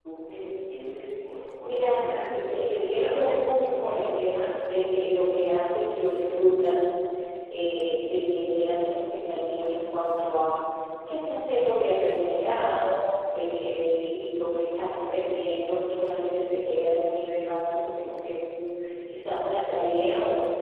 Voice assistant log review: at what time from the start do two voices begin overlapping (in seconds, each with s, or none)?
1.6 s